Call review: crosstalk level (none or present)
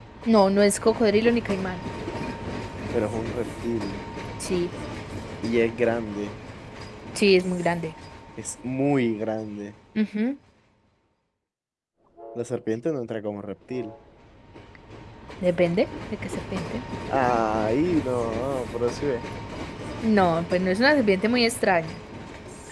none